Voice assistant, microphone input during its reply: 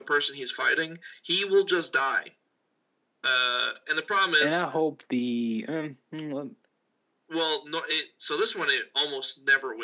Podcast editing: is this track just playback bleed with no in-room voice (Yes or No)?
No